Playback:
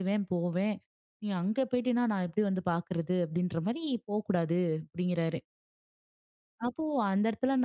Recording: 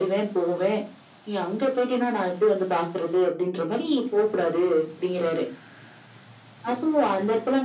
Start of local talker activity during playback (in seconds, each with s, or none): none